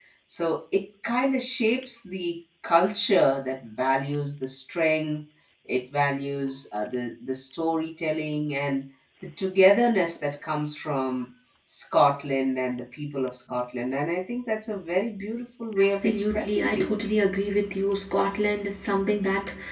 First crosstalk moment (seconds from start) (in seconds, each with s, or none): 15.8 s